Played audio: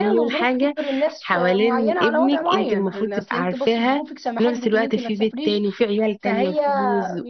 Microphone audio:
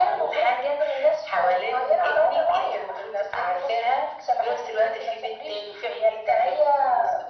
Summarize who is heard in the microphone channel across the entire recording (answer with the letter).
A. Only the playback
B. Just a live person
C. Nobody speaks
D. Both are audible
A